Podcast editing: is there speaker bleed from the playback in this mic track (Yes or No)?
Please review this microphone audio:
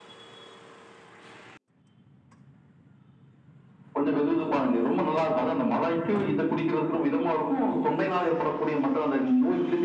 Yes